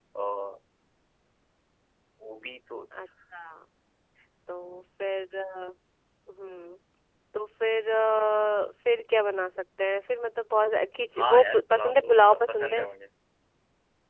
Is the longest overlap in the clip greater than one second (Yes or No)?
Yes